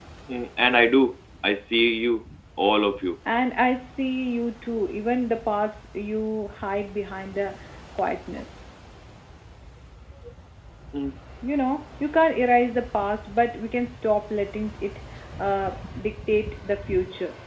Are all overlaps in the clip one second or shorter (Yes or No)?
Yes